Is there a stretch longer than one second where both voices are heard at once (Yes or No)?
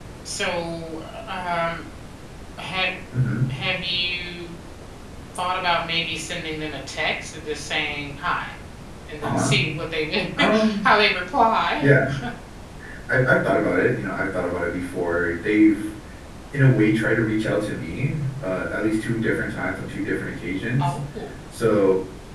No